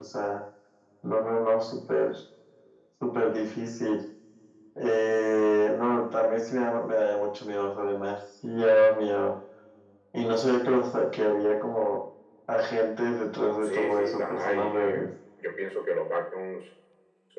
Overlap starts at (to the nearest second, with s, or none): 14 s